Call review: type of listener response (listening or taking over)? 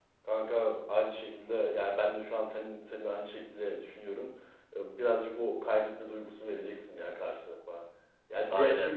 listening